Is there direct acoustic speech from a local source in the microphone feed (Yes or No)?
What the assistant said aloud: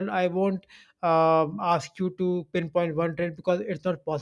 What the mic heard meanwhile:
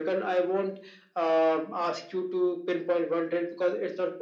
No